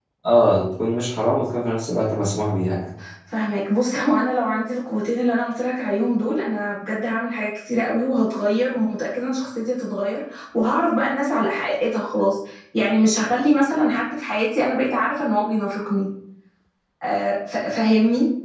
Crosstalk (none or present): none